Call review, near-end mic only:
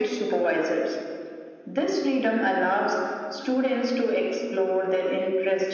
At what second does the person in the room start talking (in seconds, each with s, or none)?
none